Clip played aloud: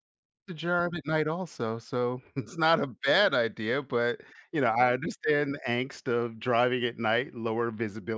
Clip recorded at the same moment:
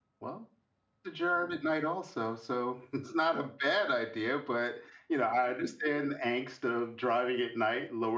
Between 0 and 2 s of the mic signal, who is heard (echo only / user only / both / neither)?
echo only